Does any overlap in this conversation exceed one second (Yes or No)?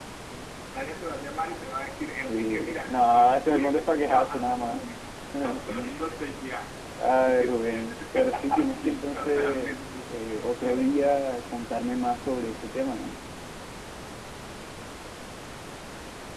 Yes